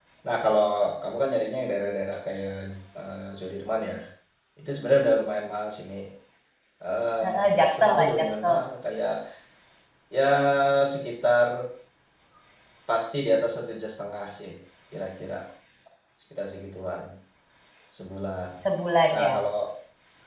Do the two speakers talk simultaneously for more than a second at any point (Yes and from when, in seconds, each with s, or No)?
Yes, from 7.2 s